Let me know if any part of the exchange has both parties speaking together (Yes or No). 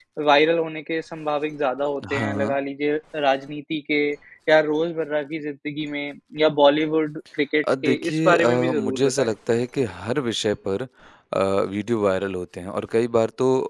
Yes